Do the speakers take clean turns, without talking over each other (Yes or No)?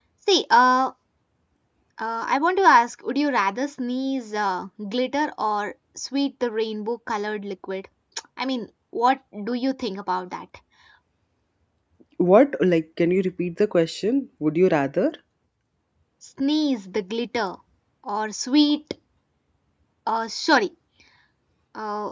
Yes